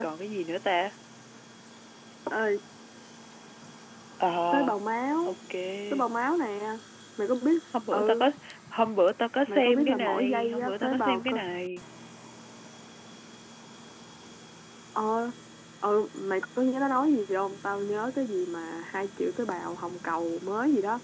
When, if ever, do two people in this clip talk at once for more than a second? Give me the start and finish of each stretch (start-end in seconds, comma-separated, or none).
9.5-11.4